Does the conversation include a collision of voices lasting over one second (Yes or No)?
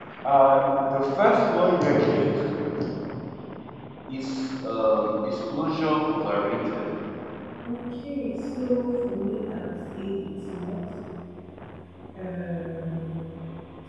No